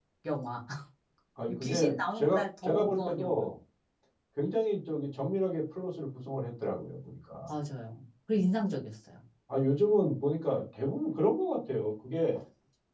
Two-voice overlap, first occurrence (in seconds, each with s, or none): 1.6 s